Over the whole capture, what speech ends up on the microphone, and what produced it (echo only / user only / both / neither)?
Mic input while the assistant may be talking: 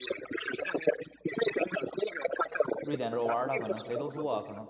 both